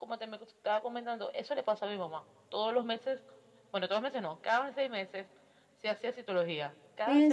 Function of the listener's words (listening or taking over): taking over